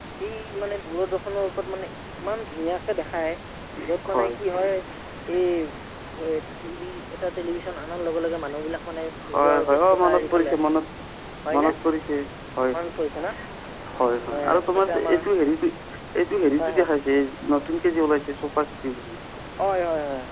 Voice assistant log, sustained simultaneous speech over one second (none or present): present